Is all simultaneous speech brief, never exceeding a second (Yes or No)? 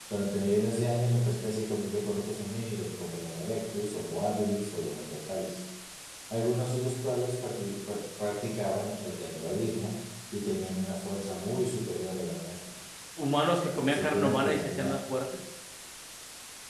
No